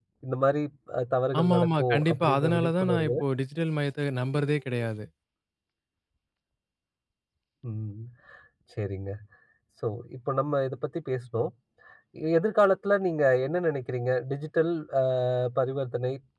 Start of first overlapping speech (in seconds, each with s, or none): 1.4 s